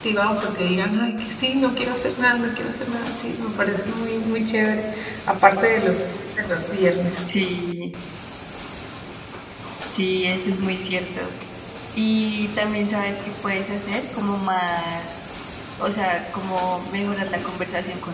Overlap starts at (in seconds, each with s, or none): none